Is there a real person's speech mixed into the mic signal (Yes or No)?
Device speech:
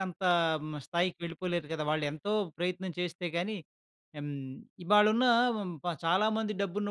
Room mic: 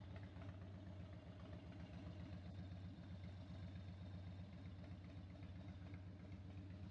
No